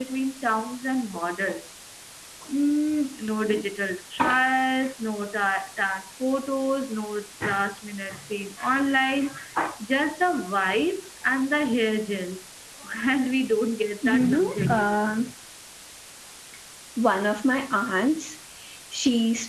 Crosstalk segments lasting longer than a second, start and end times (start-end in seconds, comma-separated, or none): 14.1-15.3